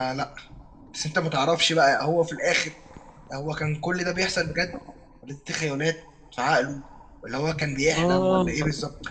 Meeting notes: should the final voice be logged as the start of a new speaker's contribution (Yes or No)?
No